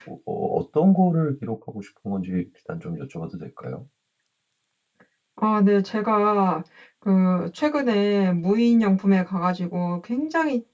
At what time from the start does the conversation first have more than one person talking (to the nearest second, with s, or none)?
none